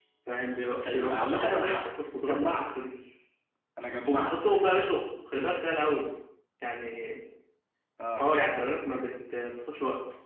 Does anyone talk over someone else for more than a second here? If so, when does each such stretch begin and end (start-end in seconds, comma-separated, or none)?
0.8-2.7